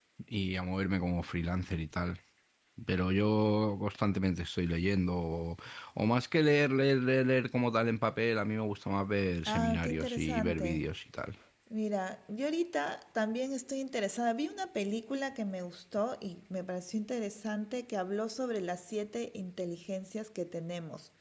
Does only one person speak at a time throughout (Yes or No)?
No